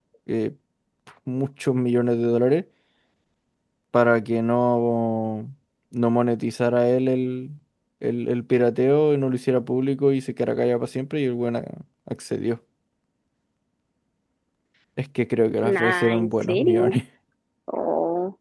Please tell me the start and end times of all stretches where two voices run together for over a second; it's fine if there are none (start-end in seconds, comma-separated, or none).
15.6-16.9